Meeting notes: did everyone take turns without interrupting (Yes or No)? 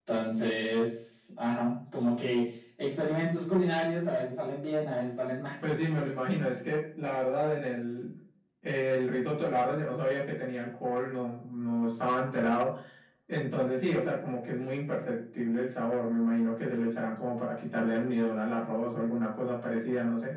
Yes